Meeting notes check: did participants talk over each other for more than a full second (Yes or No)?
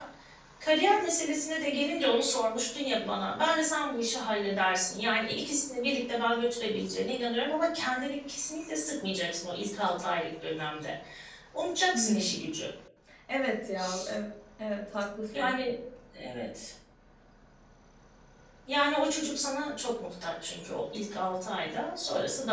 No